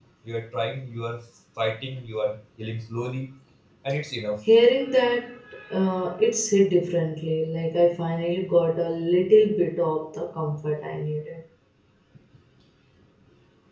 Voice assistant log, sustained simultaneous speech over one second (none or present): none